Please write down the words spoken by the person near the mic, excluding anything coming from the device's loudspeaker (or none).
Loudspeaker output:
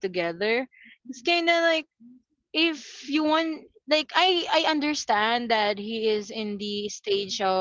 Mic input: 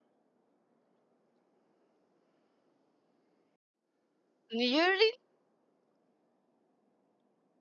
you really